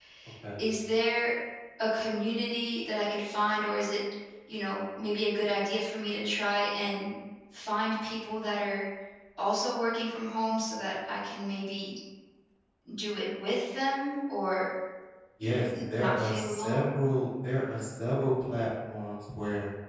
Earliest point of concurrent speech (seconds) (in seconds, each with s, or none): 15.4 s